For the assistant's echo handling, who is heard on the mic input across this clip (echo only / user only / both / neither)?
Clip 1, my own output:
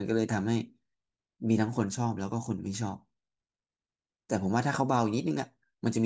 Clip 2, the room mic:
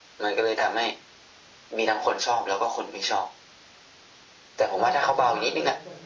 both